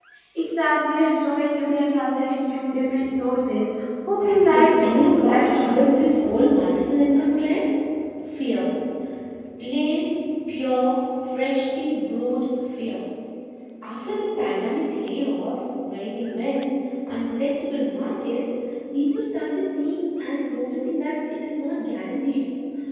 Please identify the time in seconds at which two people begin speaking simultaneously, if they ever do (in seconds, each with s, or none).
4.2 s